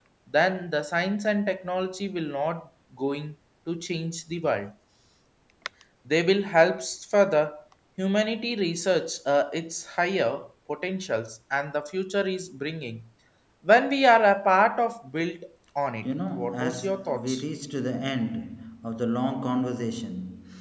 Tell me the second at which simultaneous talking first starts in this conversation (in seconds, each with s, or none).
16.0 s